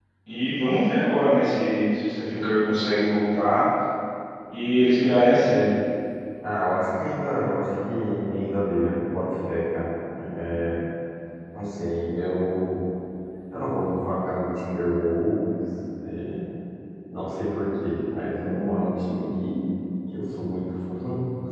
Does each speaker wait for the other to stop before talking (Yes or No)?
Yes